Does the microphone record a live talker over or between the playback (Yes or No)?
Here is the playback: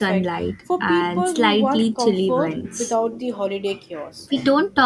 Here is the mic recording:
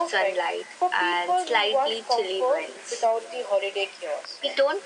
No